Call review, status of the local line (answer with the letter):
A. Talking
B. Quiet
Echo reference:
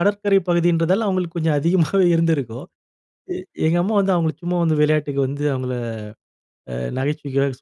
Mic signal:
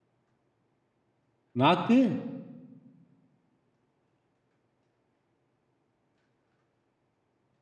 A